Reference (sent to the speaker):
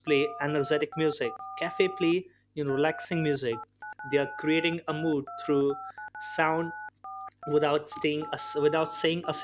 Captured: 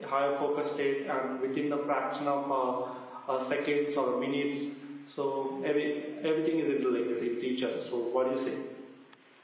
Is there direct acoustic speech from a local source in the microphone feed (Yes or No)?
Yes